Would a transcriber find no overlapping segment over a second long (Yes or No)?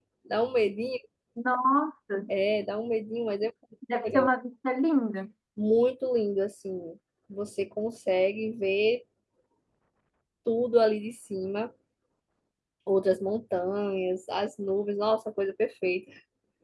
Yes